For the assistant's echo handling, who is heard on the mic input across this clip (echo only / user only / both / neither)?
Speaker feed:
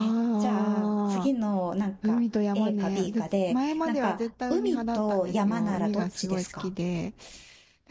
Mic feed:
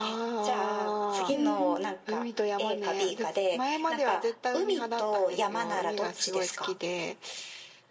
both